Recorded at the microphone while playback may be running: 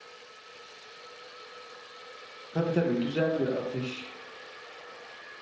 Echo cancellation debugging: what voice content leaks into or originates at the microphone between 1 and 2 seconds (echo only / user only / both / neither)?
neither